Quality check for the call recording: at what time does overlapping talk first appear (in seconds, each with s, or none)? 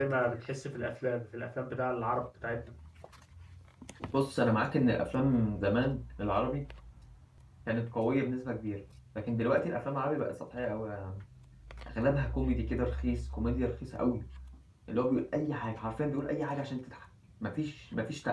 none